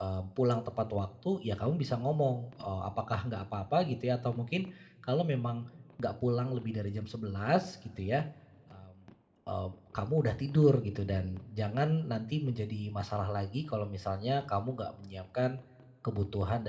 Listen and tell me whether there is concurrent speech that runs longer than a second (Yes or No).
No